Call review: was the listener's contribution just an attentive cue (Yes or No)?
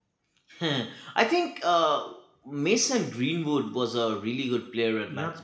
No